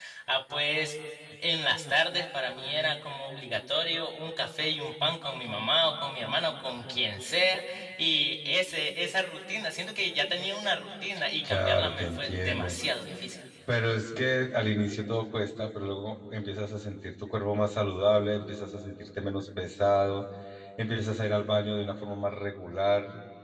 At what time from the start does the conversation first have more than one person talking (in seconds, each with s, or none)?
11.4 s